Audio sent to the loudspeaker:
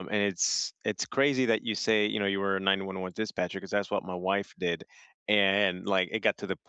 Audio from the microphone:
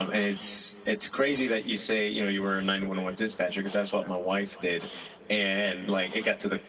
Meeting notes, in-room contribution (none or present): none